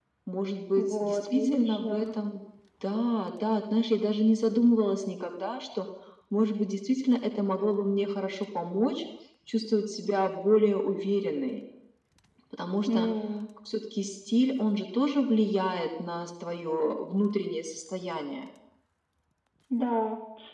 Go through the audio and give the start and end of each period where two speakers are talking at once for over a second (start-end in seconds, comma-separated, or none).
0.8-2.0